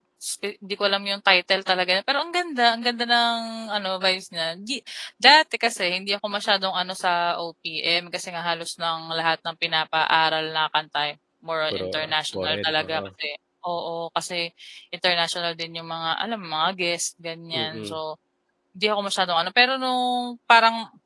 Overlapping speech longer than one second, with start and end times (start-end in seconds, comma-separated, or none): 11.7-13.1